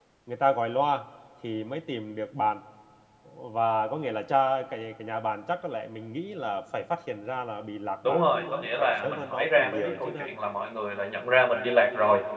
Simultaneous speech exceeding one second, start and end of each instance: 8.1-10.3

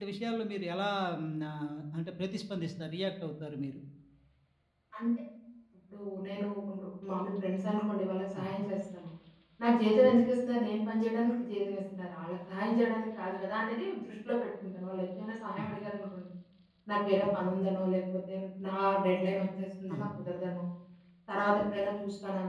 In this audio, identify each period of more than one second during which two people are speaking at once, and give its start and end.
none

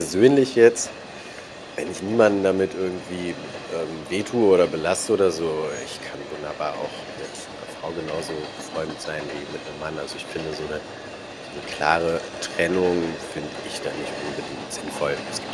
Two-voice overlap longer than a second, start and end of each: none

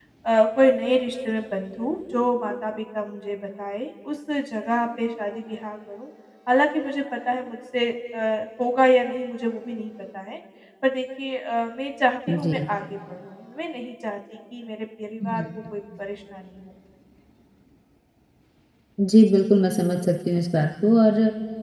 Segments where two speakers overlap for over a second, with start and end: none

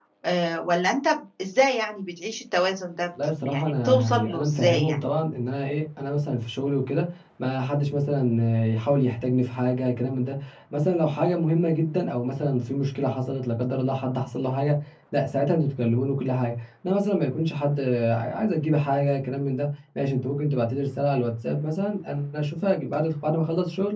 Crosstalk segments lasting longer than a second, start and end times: 3.4-5.0

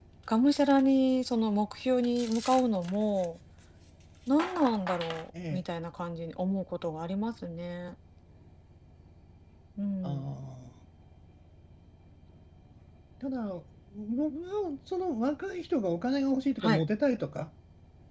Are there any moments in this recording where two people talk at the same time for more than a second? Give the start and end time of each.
none

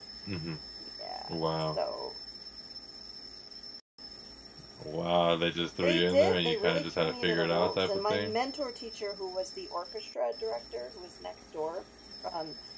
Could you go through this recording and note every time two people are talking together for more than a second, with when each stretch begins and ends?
5.8-8.3

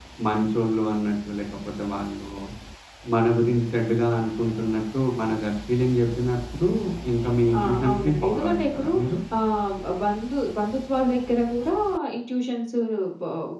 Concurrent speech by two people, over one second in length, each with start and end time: 7.6-8.9

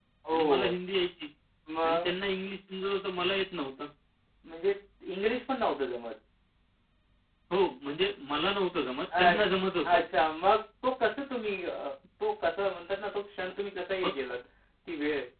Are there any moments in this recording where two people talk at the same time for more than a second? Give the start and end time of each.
none

